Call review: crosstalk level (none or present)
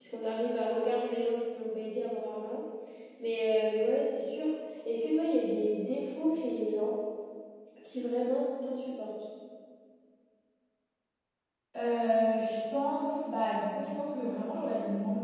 none